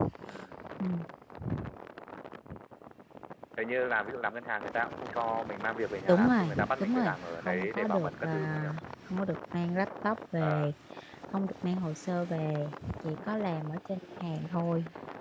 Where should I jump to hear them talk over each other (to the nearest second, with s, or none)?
6 s